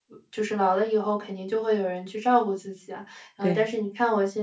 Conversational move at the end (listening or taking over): listening